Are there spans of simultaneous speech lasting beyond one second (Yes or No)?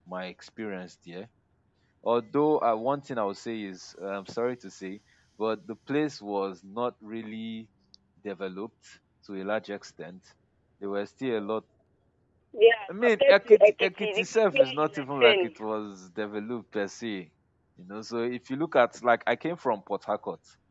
Yes